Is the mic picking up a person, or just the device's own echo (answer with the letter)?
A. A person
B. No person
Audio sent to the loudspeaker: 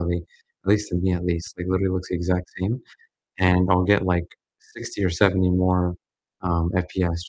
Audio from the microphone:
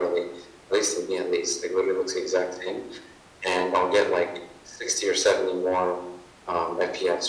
B